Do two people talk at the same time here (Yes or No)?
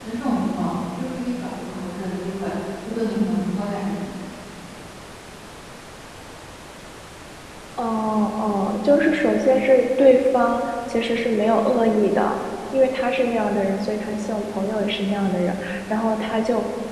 No